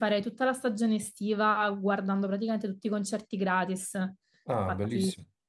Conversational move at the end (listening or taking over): listening